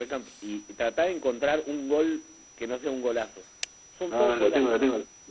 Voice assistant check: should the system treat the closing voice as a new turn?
Yes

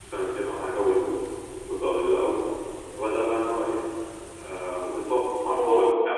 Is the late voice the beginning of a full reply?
No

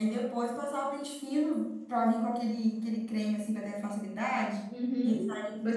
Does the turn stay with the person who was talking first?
No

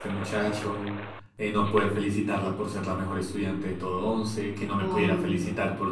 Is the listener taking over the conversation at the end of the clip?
No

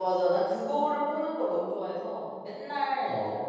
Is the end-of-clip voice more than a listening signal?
No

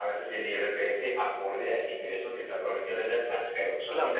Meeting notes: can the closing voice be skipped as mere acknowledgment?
No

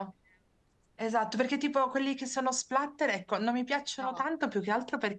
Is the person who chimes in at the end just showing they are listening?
Yes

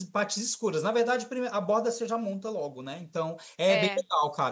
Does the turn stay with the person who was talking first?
Yes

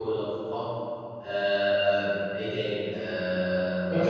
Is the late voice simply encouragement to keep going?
No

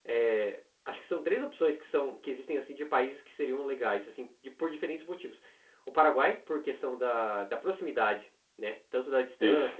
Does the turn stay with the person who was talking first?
Yes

